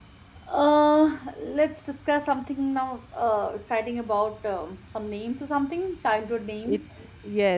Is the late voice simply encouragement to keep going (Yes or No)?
No